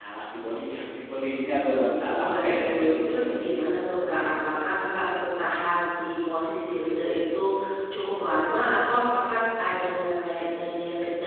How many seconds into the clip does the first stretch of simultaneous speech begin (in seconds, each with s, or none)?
2.1 s